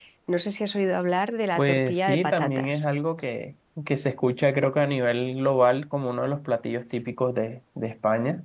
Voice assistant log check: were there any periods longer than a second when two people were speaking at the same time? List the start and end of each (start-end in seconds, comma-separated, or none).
1.6-2.8